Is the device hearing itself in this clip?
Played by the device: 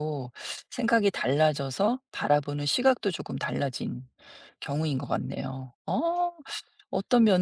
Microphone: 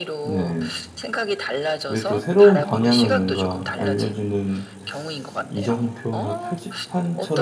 Yes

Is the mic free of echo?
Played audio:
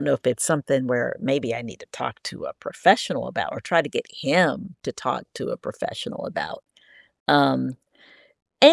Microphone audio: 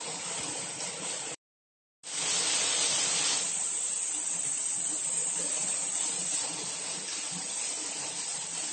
Yes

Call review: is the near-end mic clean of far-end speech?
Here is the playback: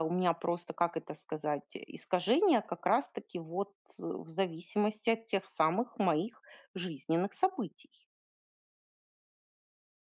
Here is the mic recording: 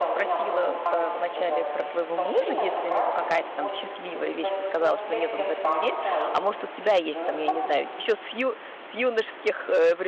No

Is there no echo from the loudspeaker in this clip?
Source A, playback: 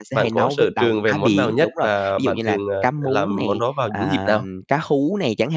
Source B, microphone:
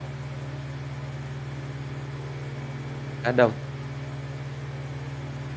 Yes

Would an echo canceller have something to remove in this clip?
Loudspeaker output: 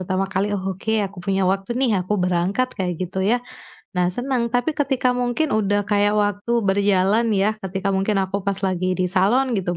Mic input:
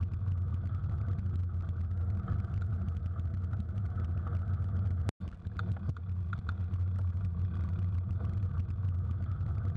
No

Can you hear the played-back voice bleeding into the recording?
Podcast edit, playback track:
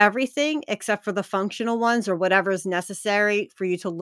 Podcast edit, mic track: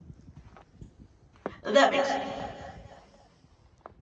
No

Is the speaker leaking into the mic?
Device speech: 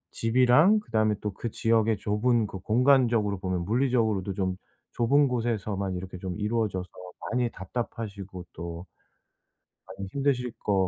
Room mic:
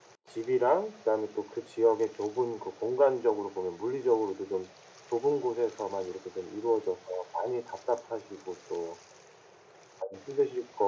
Yes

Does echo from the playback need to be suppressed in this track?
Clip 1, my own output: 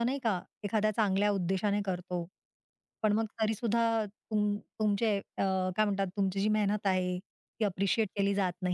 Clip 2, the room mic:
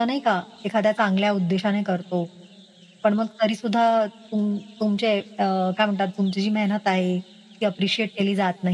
Yes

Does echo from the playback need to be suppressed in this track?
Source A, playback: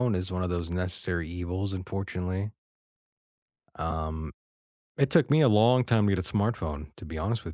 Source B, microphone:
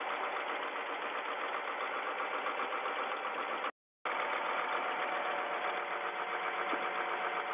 No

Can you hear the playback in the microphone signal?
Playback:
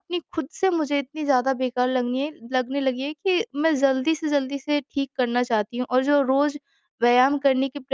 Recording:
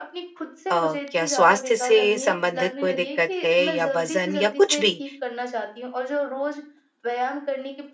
Yes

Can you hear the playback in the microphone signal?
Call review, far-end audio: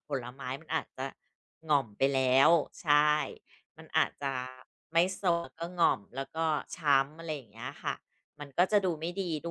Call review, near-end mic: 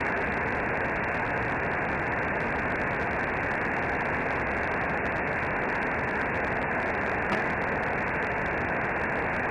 No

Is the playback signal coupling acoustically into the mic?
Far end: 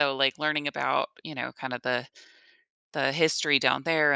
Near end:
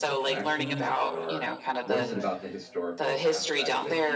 Yes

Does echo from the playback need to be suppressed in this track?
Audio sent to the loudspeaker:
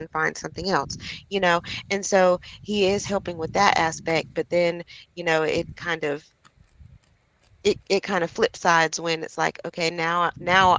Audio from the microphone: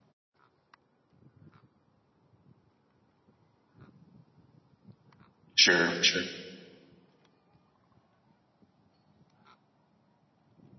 No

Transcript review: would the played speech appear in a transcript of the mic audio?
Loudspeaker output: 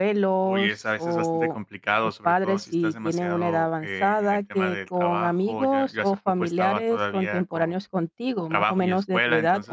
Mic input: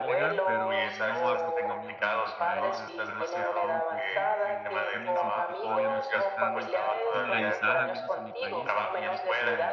Yes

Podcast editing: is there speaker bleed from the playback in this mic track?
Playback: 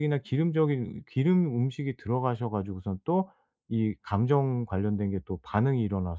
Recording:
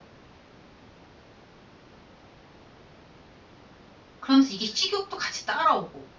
No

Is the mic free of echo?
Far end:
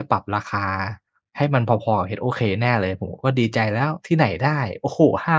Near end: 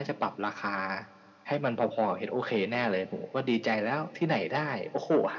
No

